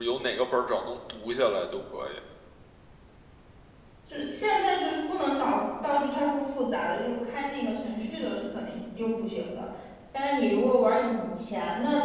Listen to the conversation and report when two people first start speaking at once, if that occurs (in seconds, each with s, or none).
none